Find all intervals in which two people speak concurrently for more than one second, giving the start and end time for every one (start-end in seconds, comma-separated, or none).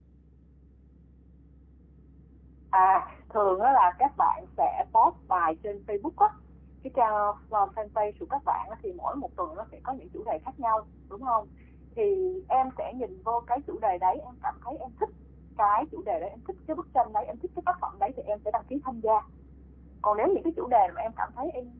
none